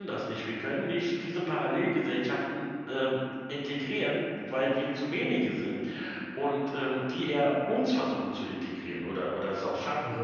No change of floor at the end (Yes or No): No